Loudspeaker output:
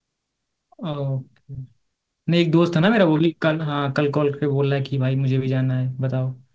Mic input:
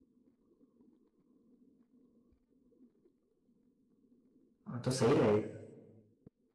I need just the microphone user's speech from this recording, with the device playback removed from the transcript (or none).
हाँ, तो सही रहेगा